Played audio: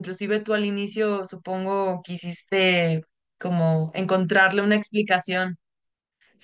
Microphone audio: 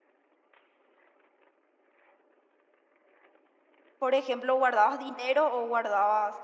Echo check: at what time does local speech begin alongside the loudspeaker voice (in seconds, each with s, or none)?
4.0 s